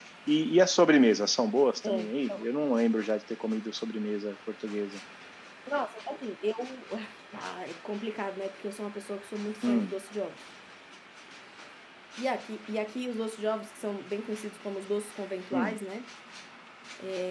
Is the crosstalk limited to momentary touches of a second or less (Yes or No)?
Yes